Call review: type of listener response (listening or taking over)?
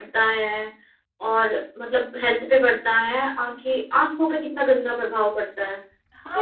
taking over